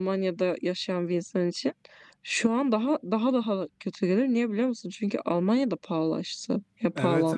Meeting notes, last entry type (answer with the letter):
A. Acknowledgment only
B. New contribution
B